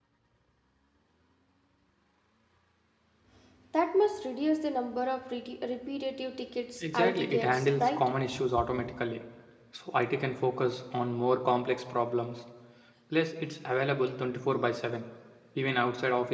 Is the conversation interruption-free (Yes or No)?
No